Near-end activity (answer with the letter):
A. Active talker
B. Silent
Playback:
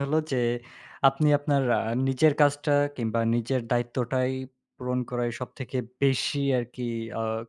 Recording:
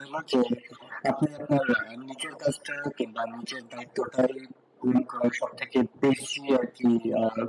B